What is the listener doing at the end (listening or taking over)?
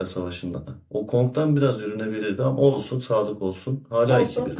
taking over